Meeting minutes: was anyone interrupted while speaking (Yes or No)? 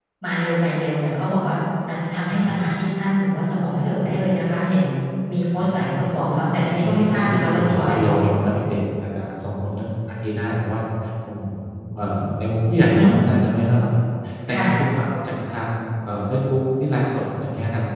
Yes